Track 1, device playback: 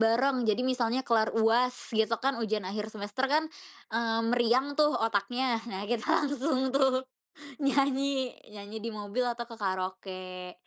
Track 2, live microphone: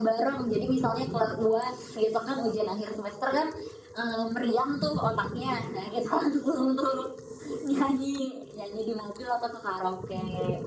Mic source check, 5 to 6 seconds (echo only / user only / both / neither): echo only